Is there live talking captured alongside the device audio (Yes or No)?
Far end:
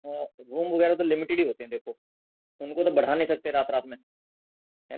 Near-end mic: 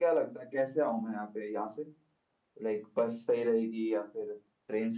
Yes